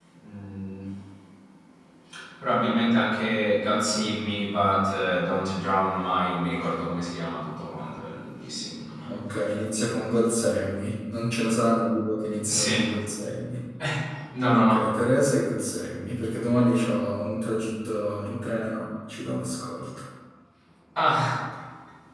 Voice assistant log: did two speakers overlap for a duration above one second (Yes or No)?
No